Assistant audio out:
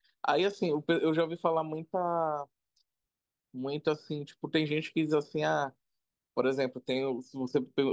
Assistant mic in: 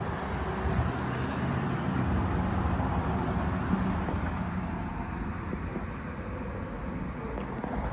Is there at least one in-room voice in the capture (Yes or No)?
No